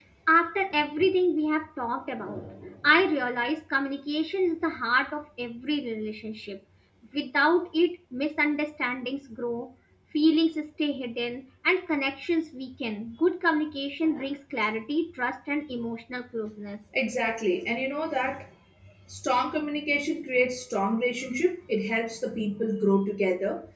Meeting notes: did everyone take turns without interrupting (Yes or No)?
Yes